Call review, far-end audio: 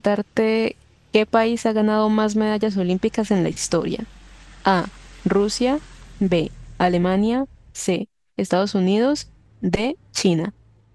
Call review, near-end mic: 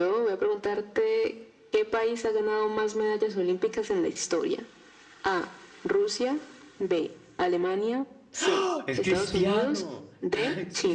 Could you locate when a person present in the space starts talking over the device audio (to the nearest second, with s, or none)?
8 s